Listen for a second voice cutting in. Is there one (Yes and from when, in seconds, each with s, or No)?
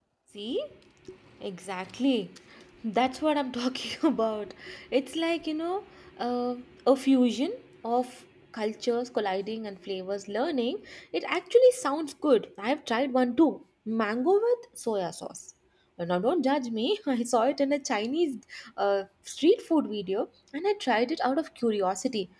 No